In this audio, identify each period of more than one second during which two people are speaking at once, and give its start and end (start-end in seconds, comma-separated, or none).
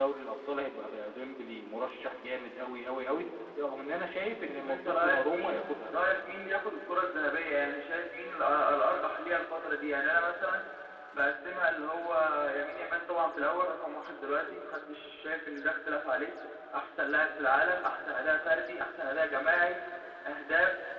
4.6-5.9